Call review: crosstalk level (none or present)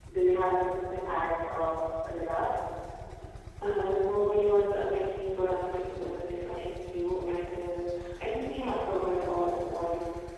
none